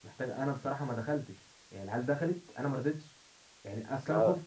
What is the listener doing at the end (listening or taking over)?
listening